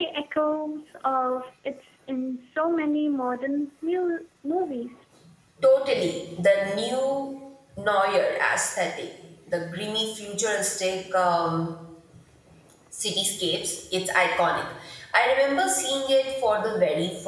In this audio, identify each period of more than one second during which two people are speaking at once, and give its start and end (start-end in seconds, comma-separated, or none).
none